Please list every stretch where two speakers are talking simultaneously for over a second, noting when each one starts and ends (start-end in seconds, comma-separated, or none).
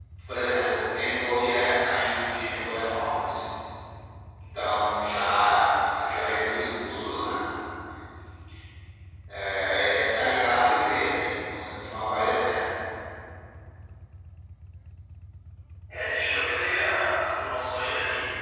none